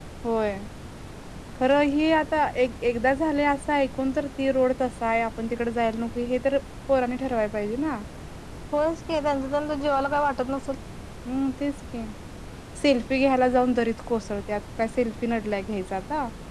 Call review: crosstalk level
none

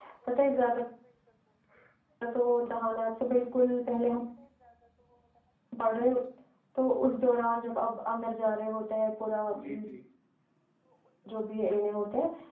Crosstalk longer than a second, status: none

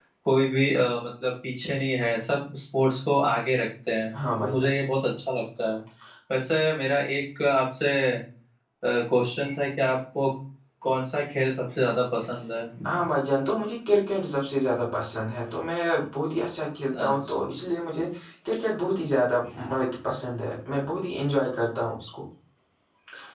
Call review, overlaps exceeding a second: none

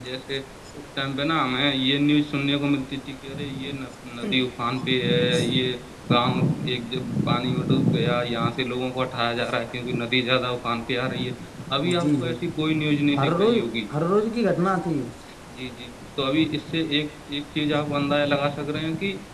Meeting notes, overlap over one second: none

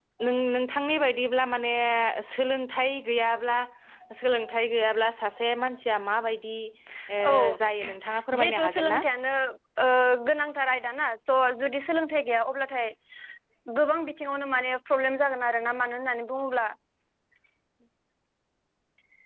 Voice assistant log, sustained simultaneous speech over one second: present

